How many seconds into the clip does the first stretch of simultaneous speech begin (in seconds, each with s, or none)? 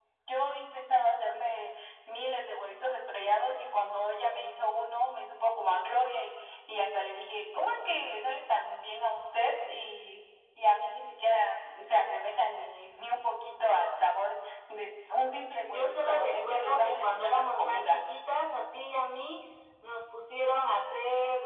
15.6 s